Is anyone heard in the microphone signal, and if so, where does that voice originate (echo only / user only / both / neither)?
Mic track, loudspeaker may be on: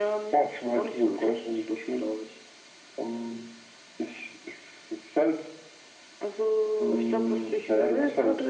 echo only